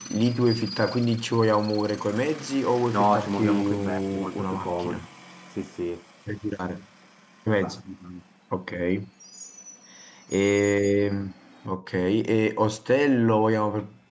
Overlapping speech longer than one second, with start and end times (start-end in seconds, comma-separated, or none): 2.9-5.0